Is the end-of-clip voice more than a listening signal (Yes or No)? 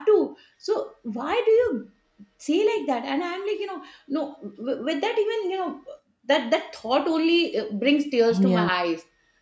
No